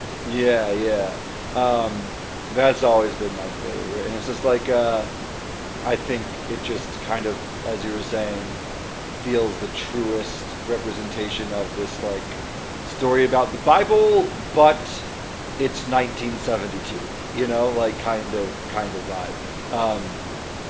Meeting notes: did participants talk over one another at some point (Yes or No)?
No